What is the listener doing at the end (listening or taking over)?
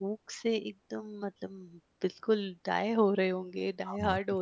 taking over